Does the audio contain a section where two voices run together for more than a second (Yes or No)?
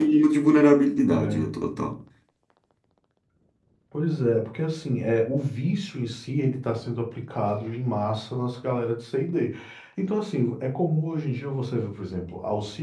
No